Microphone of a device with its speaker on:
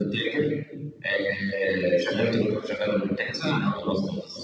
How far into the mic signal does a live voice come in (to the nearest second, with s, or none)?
none